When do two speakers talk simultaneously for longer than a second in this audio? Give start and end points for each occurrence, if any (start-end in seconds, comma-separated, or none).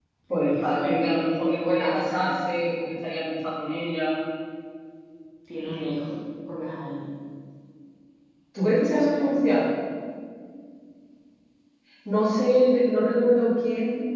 0.6-2.3